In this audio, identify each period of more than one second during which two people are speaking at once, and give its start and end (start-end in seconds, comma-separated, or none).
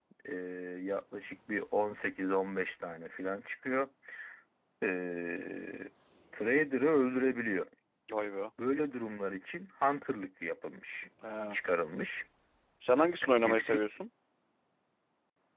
none